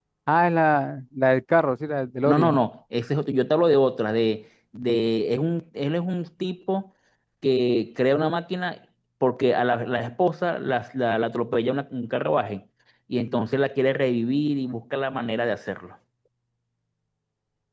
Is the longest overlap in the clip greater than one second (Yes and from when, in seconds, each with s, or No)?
No